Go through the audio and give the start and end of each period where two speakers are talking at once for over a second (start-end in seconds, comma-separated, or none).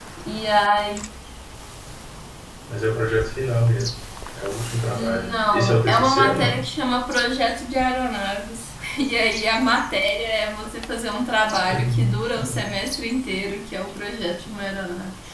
5.0-6.6